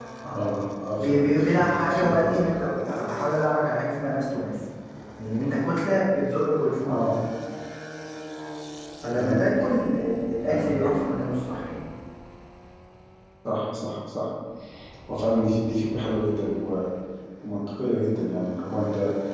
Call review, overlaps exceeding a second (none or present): present